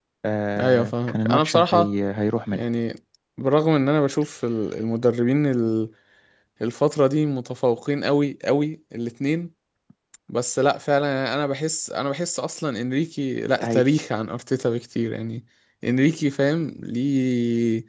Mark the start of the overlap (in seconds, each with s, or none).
0.6 s